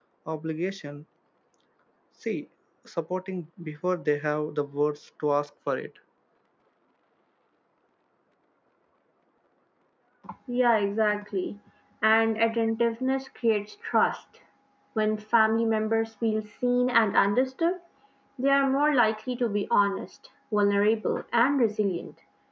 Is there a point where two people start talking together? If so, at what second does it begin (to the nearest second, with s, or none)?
none